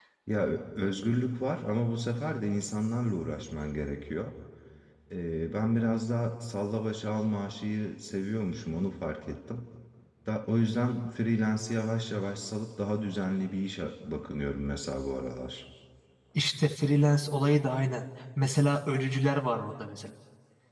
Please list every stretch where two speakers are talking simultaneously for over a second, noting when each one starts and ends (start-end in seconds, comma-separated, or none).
none